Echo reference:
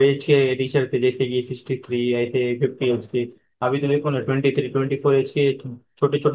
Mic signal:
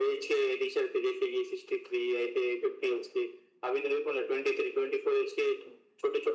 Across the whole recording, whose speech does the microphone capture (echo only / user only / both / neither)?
echo only